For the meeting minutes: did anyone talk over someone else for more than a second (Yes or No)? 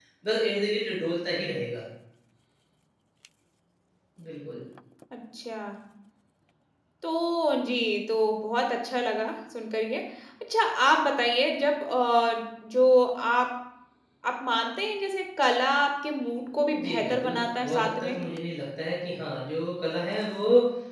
Yes